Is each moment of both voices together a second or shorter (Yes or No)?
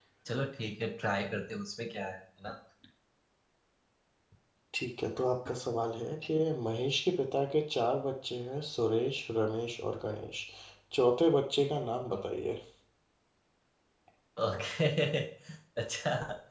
Yes